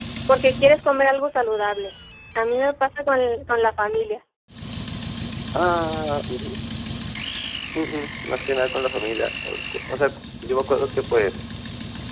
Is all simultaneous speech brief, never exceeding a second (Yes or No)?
Yes